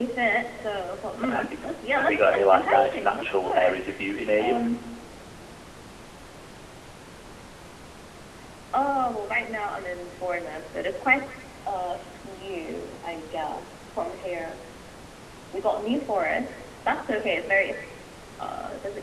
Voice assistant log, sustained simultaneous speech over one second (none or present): present